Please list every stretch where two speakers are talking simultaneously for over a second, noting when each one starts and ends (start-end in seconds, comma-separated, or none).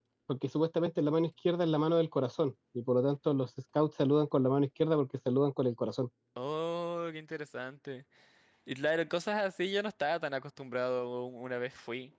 none